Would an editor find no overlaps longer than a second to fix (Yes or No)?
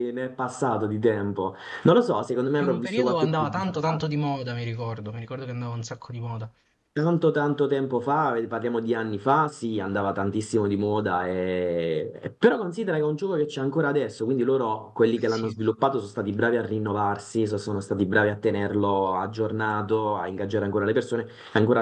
No